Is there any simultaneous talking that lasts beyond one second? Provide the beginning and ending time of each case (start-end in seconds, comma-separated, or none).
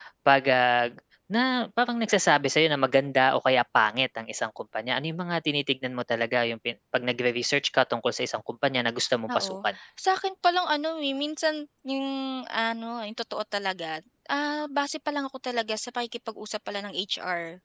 none